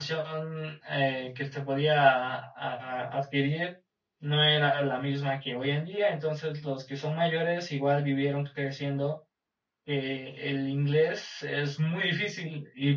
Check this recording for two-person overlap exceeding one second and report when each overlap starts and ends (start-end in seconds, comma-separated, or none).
none